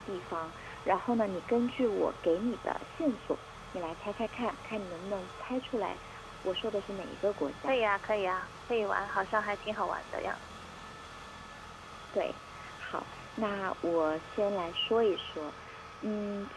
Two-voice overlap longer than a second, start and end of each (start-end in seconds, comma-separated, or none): none